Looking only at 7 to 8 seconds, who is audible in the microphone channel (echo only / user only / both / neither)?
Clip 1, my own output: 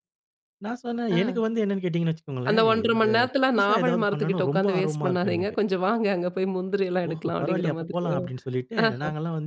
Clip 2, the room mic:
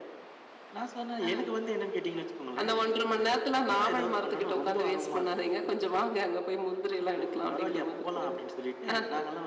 echo only